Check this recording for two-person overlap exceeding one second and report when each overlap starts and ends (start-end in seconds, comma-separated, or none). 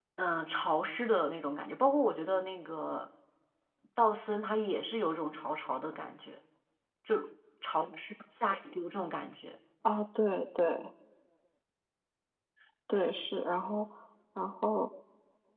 none